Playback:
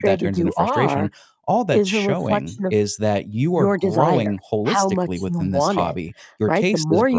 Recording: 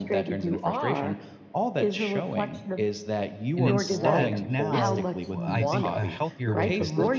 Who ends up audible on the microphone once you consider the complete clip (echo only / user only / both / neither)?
both